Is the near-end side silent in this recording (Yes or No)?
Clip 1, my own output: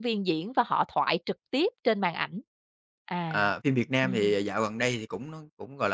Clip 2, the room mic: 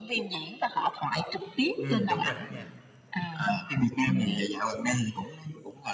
No